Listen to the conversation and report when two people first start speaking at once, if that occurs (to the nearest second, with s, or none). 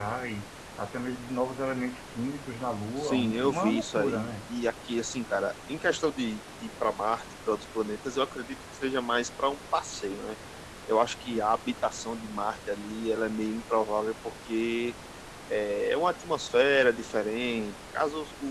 3 s